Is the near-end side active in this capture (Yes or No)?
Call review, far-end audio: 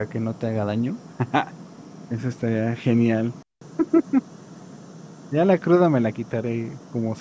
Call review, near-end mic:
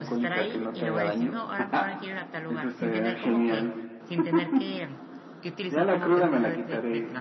Yes